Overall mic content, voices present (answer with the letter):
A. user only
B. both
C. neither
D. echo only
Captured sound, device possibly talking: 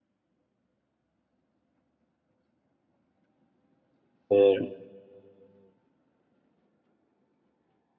A